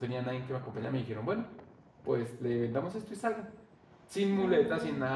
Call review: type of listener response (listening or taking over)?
listening